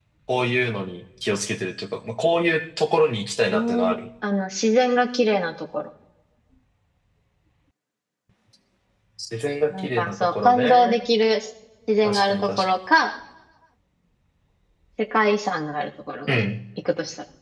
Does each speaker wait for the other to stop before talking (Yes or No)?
No